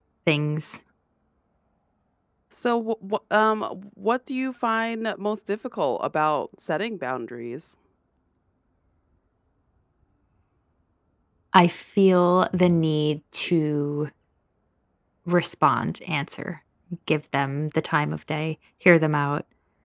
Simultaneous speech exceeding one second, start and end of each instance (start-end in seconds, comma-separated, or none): none